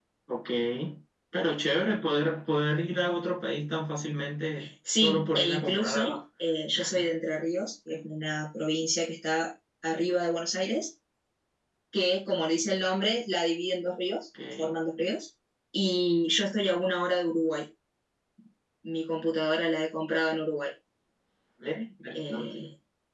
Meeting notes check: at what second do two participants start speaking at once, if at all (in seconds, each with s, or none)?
4.9 s